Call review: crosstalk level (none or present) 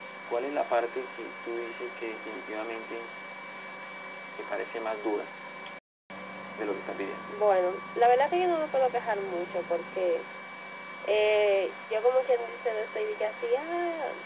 none